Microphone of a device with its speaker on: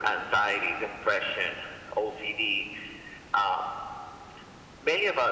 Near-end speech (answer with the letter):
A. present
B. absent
B